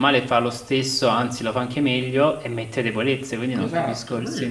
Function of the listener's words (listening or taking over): taking over